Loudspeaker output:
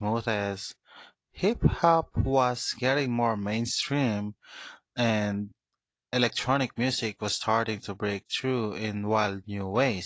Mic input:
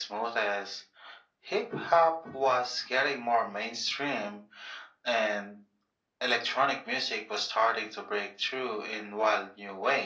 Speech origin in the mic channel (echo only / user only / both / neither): echo only